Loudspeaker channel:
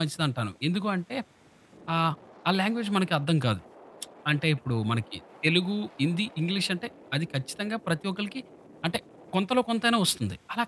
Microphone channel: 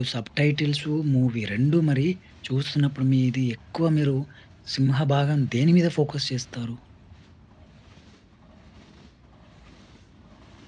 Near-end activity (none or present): present